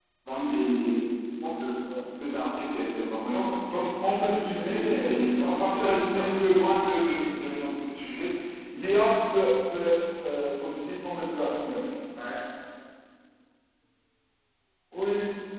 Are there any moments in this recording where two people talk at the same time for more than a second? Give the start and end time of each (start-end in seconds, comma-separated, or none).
4.6-6.3